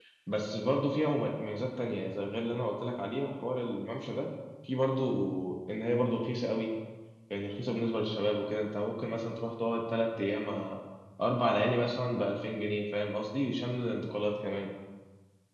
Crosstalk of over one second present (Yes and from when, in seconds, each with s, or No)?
No